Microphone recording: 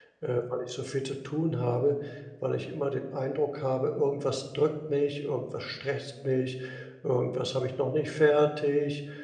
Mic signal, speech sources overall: user only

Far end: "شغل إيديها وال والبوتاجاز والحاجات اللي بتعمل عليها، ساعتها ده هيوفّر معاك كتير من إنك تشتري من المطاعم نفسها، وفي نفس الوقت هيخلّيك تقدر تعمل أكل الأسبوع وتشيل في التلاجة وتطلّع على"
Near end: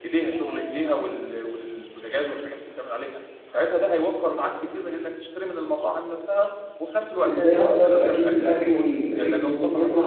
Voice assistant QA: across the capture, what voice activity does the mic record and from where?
both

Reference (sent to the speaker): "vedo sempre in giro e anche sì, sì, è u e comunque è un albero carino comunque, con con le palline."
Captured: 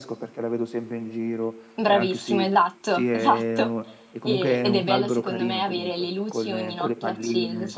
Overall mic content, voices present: both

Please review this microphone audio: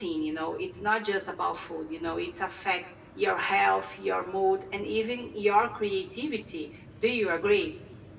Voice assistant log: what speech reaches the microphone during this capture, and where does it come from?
echo only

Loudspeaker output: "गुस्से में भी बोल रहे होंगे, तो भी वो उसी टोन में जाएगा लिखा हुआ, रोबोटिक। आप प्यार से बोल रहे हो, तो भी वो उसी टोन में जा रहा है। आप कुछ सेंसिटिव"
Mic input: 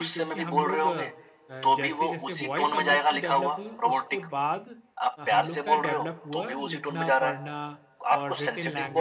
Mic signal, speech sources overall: both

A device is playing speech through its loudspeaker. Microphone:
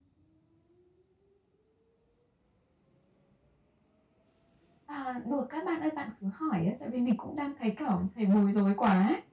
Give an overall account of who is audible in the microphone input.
user only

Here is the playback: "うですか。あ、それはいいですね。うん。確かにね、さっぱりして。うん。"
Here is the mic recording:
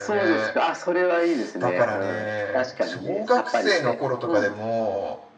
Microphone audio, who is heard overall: both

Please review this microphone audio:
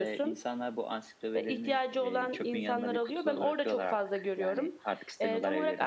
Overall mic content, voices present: echo only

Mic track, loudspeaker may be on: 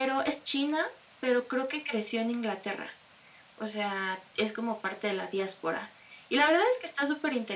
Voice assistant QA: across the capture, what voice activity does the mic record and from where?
echo only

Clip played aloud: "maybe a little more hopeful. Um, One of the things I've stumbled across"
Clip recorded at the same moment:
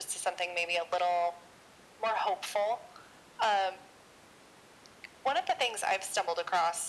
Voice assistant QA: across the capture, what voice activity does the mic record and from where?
echo only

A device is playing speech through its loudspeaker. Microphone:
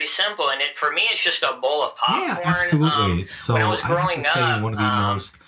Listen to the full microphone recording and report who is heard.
both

